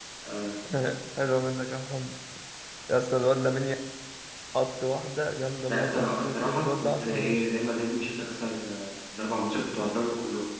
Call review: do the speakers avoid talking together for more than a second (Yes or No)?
No